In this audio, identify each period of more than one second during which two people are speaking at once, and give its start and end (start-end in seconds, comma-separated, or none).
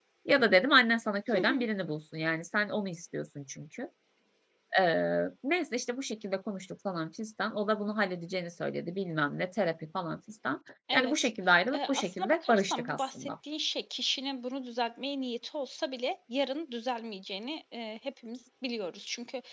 11.7-13.3